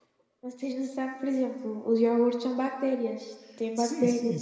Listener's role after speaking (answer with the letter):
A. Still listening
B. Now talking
B